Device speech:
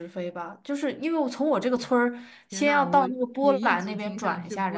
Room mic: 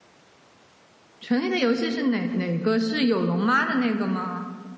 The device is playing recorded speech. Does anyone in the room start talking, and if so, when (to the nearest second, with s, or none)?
1 s